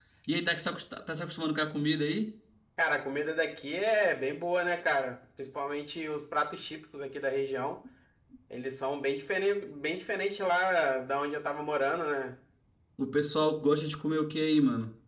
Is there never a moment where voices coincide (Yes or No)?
Yes